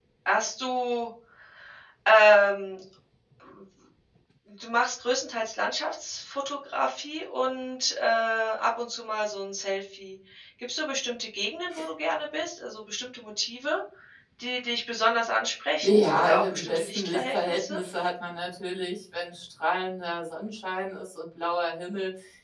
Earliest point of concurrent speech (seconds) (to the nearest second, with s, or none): 16 s